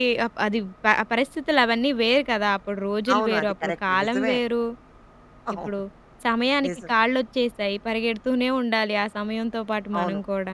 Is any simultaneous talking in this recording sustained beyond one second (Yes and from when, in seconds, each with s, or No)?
Yes, from 3.1 s